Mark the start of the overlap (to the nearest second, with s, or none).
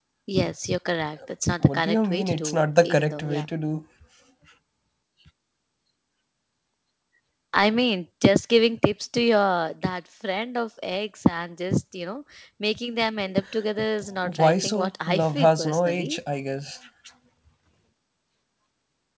2 s